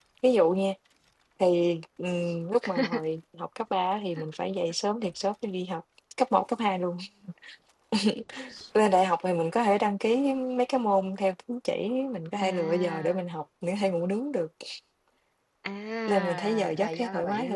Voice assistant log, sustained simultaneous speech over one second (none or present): present